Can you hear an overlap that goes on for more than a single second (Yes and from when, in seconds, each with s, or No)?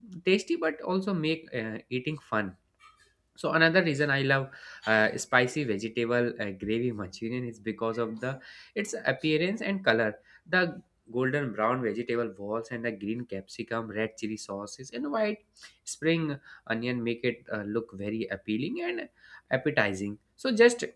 No